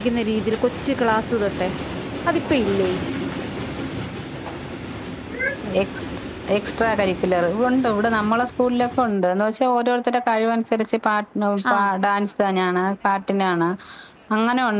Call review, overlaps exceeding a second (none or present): none